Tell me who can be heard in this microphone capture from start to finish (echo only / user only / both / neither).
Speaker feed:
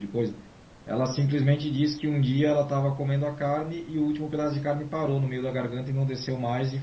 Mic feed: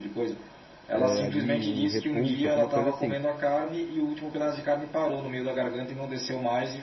both